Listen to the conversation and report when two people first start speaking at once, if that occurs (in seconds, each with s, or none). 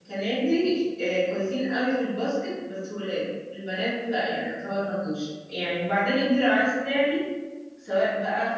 none